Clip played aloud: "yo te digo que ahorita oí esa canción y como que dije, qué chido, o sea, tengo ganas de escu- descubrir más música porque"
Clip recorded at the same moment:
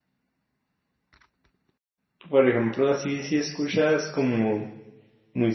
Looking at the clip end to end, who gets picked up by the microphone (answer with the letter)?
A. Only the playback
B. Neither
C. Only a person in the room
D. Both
C